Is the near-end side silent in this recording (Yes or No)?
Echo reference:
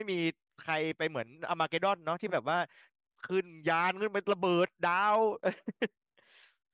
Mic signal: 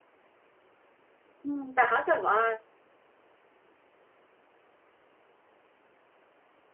No